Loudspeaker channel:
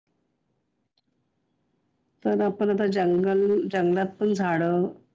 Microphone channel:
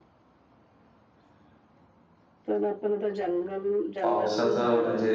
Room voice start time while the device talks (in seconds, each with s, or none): 4.0 s